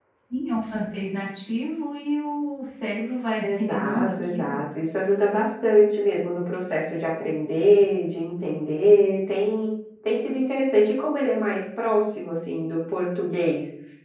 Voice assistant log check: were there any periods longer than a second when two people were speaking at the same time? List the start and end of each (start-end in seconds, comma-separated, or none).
3.4-4.6